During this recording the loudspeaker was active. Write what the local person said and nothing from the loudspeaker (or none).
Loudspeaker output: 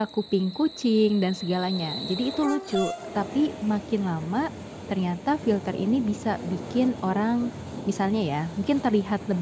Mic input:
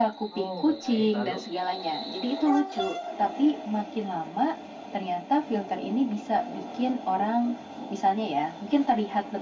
Oh, baik. Lalu?